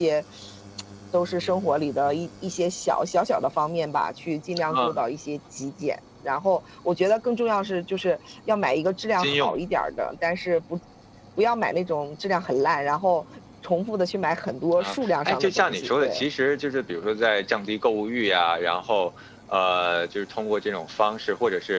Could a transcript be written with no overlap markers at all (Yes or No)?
No